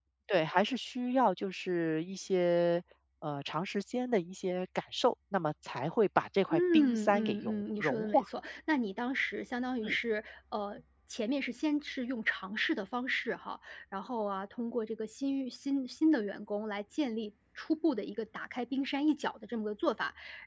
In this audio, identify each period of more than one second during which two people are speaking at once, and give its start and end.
6.5-8.2

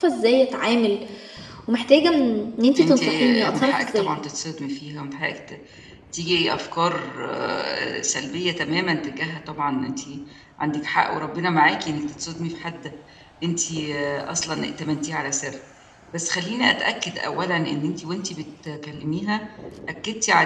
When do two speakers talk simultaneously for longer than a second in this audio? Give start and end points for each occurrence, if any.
2.8-4.1

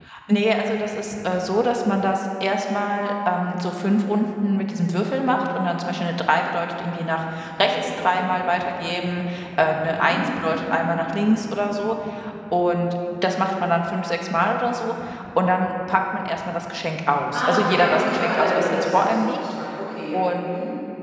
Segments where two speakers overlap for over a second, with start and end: 17.3-19.4

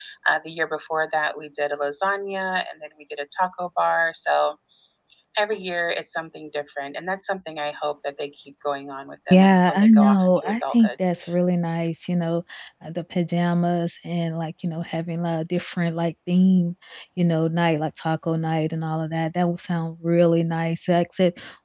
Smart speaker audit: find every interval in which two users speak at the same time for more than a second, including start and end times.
9.3-10.9

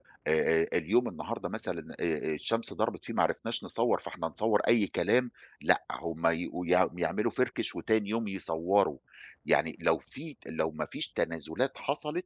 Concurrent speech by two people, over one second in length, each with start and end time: none

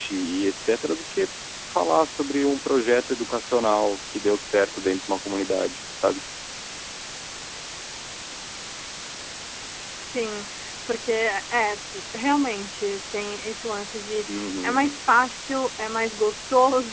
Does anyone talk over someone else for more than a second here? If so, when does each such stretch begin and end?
none

